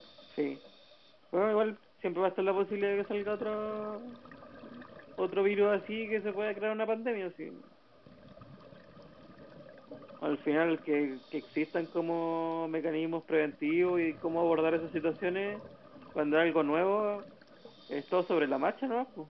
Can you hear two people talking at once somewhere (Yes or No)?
No